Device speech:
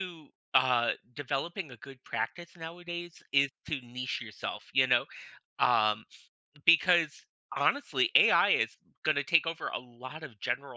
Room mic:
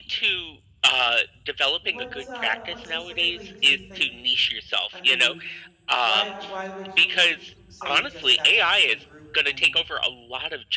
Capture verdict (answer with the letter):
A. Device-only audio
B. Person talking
B